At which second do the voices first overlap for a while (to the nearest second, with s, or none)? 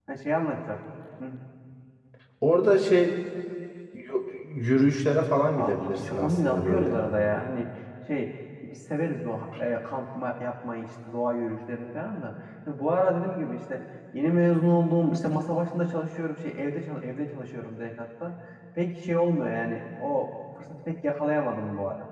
6 s